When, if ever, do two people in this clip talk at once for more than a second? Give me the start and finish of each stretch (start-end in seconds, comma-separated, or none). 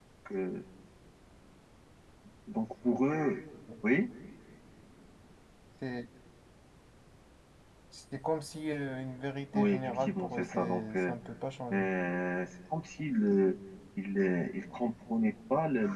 9.5-11.1